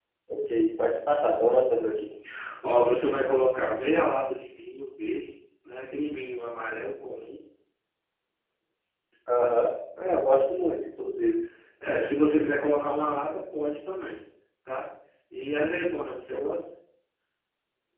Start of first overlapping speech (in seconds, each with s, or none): none